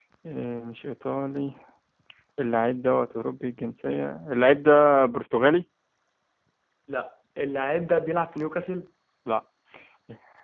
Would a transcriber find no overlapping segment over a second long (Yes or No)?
Yes